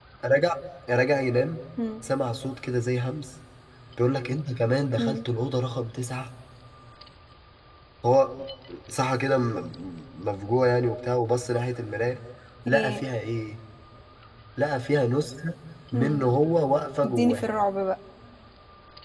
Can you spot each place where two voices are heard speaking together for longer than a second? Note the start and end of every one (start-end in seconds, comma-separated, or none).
none